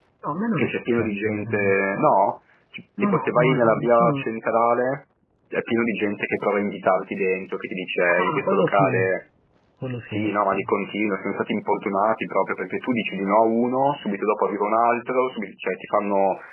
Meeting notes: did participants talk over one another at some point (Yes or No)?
Yes